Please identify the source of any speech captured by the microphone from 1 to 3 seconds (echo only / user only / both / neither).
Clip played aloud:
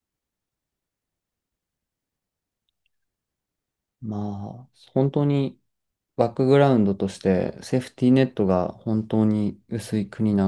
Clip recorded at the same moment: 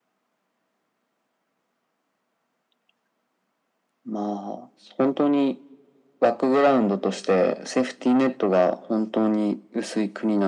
neither